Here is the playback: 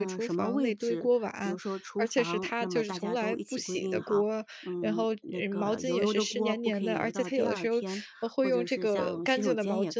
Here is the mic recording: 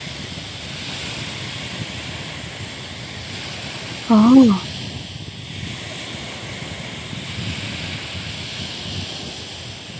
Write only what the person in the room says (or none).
哦，